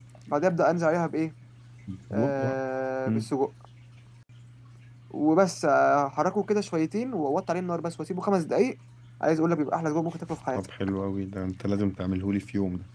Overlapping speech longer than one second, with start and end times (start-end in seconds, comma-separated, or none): none